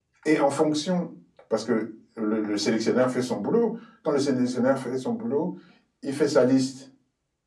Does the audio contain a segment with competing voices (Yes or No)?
No